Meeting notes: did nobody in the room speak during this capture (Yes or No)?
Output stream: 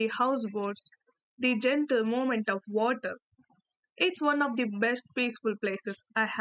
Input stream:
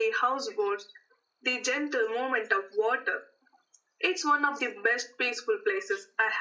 Yes